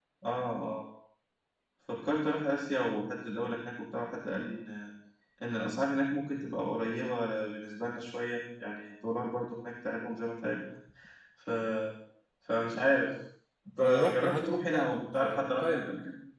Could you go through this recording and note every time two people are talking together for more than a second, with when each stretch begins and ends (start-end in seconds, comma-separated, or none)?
13.8-15.9